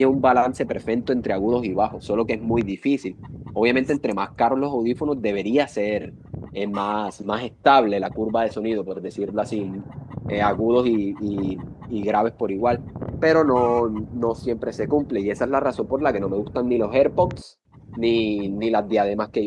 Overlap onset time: none

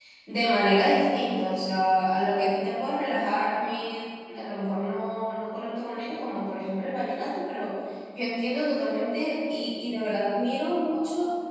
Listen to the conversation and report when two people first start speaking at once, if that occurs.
none

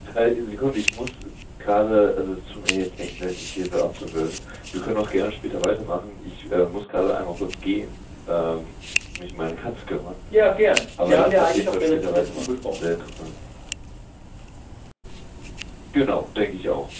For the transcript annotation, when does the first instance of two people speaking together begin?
11.0 s

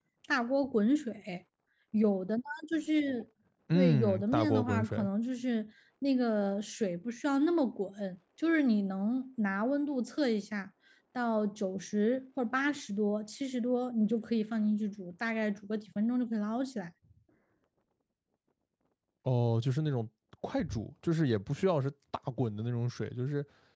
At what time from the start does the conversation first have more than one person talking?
3.7 s

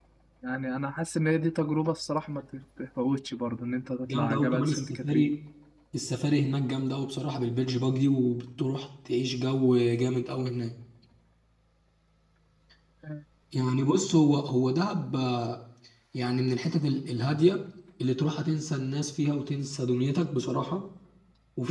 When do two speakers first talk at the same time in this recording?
4.1 s

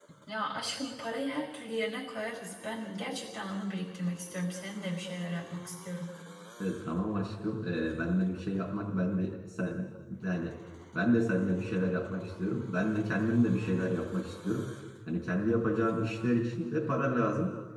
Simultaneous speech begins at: none

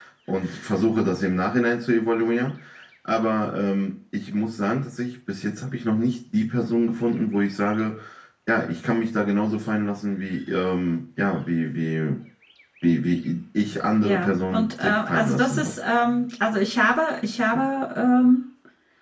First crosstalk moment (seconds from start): 14.0 s

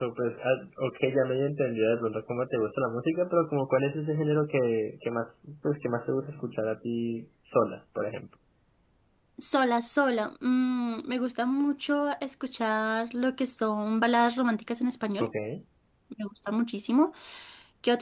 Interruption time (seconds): none

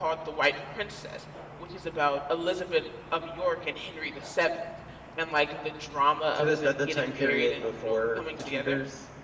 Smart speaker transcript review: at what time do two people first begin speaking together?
6.4 s

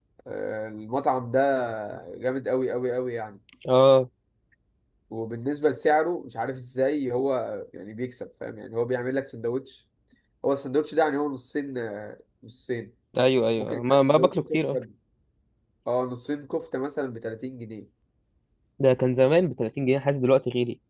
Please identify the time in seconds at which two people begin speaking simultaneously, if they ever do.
13.6 s

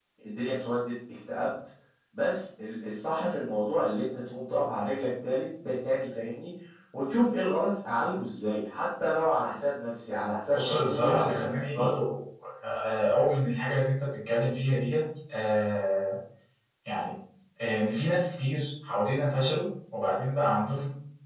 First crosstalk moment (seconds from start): 10.5 s

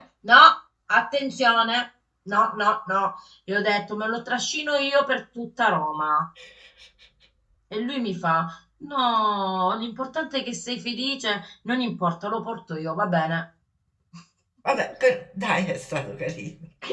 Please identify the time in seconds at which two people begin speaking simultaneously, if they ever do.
none

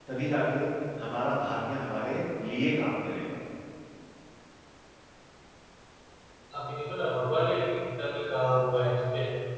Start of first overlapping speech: none

